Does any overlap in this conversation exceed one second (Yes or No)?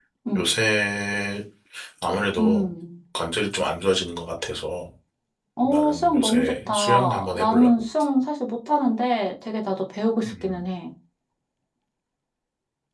Yes